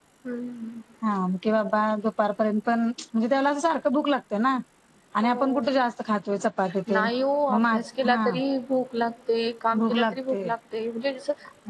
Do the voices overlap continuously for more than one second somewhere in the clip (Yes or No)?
No